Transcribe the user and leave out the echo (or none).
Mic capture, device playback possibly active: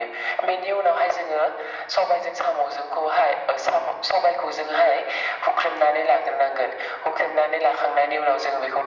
none